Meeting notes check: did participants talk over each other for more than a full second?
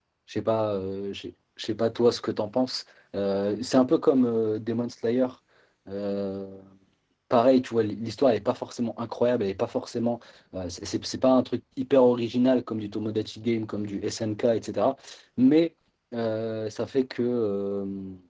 No

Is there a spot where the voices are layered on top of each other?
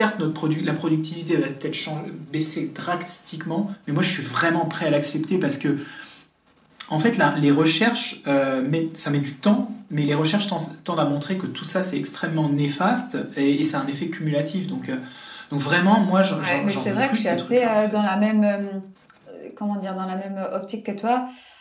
Yes, from 16.4 s

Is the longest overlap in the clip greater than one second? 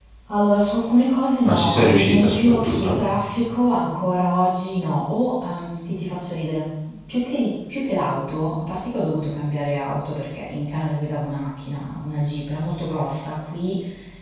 Yes, from 1.4 s

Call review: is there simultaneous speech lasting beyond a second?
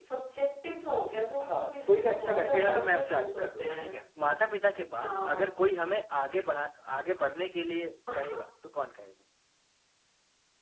Yes, from 1.4 s

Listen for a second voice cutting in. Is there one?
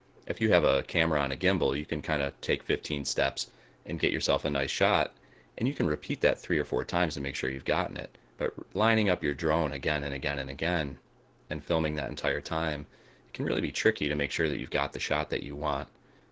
No

